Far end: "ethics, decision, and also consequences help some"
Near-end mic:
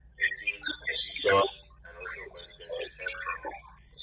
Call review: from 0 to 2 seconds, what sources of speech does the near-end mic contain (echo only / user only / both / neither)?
echo only